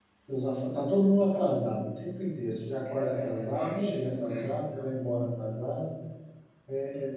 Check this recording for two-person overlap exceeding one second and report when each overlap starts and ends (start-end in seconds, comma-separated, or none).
2.8-4.5